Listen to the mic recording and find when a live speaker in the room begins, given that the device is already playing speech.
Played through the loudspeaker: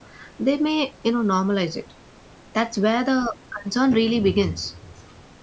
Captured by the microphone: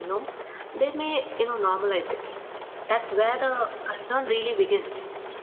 none

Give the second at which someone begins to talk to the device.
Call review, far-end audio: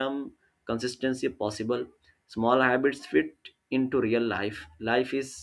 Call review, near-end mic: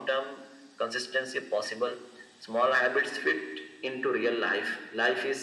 none

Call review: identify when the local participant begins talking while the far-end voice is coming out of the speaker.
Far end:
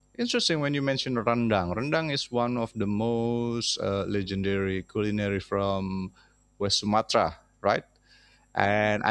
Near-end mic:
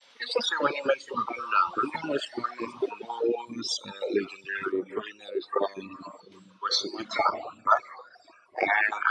none

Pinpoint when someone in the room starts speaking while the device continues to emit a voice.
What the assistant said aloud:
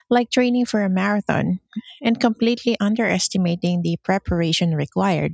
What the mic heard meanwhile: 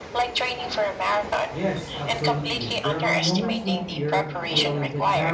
1 s

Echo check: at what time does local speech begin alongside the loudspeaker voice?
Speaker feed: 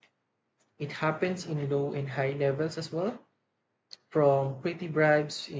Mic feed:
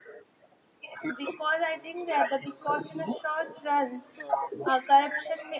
1 s

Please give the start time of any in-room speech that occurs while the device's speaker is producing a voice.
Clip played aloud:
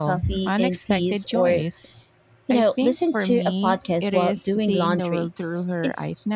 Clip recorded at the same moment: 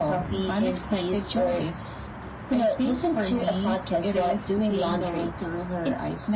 none

